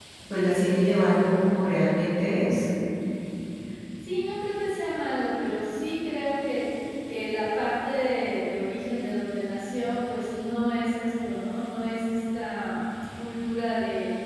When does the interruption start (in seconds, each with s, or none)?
none